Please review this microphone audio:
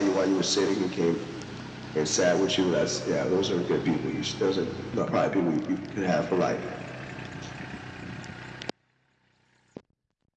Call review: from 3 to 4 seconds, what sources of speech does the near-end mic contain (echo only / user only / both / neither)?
echo only